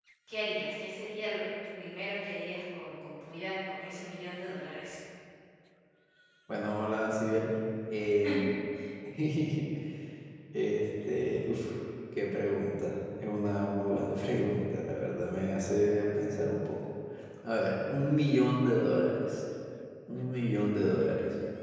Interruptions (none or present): none